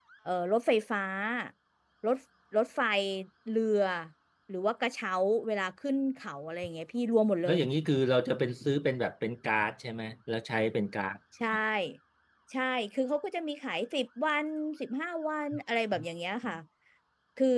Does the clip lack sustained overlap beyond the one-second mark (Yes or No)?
Yes